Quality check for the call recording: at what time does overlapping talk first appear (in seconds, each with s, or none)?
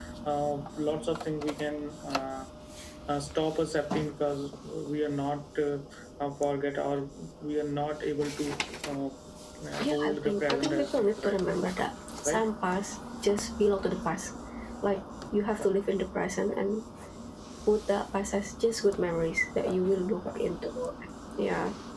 9.8 s